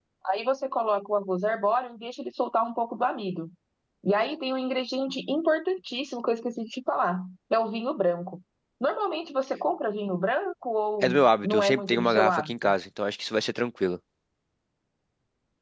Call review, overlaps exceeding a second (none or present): present